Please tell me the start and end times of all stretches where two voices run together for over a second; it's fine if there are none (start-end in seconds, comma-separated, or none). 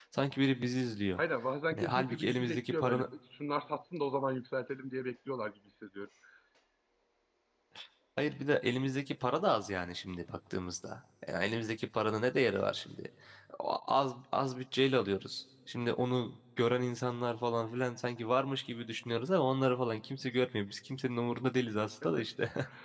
1.7-3.0